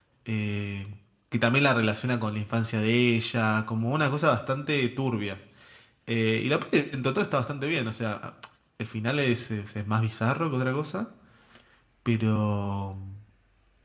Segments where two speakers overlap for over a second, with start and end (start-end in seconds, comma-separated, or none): none